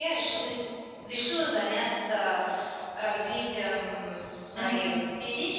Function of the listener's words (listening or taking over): listening